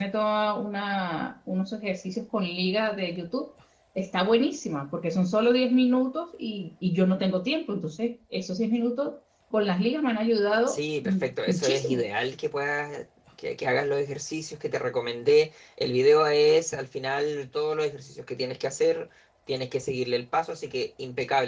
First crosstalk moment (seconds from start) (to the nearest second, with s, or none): 11 s